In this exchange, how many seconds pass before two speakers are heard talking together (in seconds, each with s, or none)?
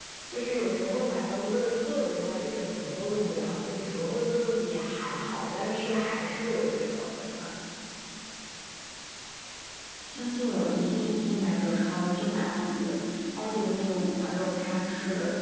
none